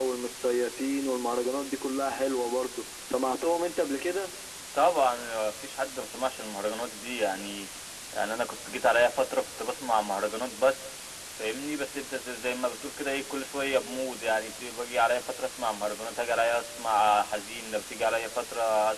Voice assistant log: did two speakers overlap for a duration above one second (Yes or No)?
No